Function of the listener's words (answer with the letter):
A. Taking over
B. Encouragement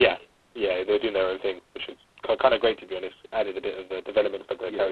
A